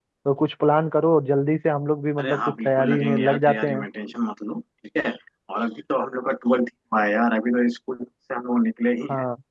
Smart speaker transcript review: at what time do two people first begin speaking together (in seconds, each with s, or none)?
2.2 s